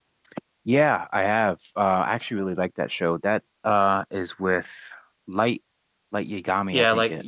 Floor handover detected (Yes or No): Yes